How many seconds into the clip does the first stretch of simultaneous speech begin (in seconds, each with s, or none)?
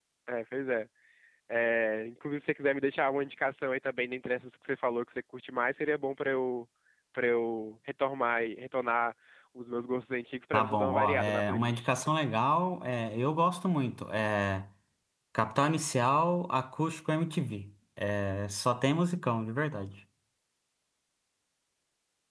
10.5 s